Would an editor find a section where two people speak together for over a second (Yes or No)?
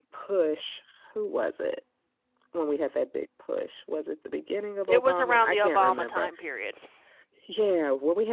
Yes